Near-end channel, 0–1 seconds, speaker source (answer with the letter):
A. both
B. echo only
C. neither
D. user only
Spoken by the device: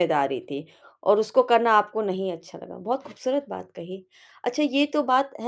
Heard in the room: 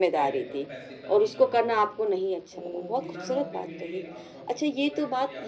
A